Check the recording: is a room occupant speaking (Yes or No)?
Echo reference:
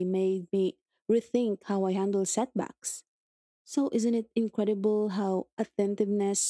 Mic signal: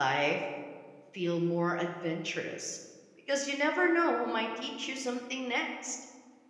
Yes